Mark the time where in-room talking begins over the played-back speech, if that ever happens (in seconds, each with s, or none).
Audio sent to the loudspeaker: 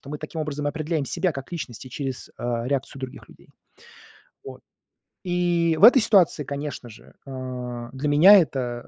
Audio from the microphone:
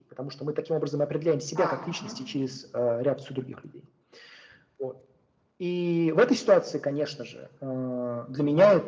1.5 s